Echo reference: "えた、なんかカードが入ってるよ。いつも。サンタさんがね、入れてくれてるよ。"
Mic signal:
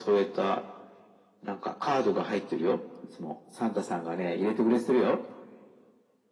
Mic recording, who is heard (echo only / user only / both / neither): echo only